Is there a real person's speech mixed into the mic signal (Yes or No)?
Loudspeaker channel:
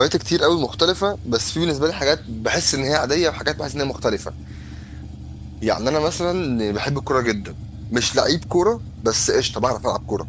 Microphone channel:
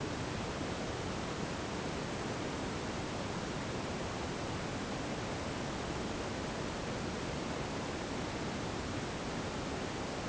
No